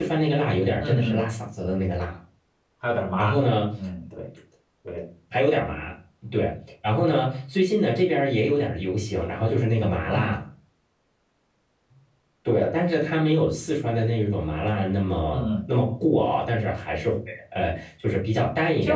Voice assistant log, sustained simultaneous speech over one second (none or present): none